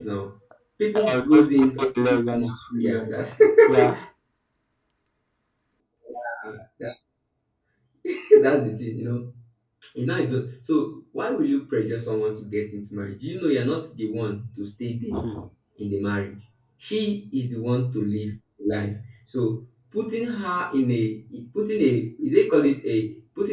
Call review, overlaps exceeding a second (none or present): present